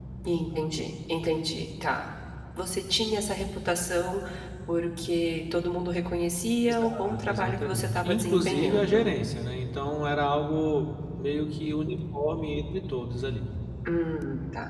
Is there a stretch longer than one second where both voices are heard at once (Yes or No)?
Yes